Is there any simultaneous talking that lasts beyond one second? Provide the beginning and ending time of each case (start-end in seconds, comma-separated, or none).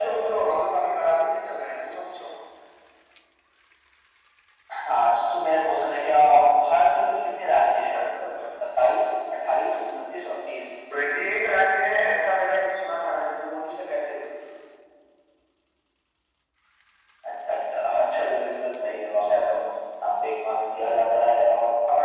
none